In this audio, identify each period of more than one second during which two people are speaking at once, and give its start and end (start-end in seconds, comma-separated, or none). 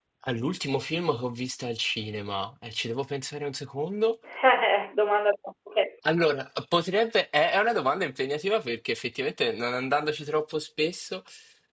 none